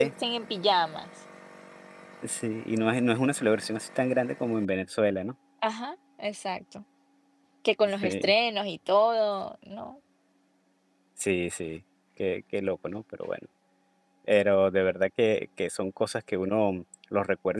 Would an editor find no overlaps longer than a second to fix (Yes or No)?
Yes